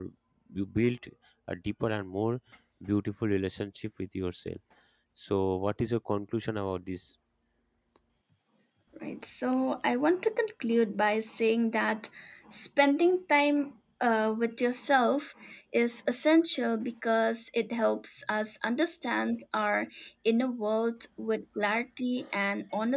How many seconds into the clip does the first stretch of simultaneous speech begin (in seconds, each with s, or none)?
none